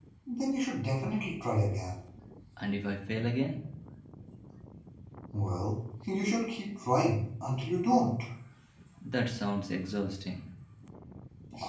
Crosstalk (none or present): none